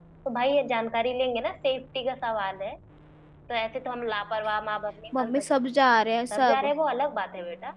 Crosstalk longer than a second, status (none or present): none